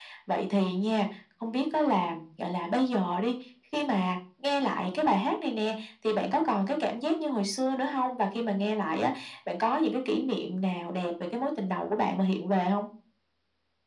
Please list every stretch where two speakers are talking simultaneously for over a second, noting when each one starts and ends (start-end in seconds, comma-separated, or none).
none